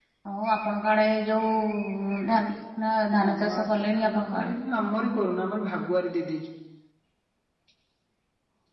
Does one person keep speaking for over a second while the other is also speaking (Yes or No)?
Yes